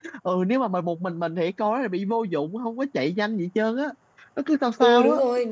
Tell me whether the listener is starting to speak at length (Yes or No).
Yes